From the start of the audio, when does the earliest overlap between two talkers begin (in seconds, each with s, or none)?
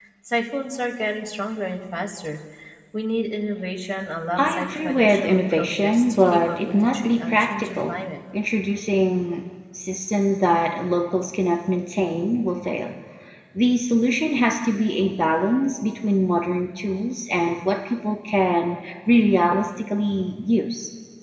4.4 s